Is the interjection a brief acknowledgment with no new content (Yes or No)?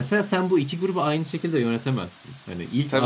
Yes